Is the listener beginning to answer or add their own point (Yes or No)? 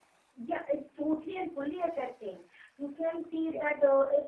No